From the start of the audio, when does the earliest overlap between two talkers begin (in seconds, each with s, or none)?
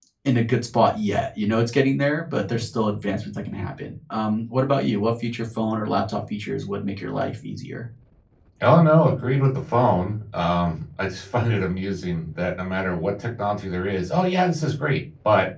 none